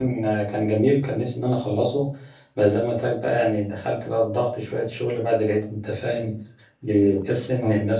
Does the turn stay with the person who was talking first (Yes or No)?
Yes